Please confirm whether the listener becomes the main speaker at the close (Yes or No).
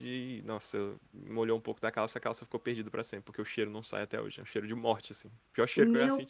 Yes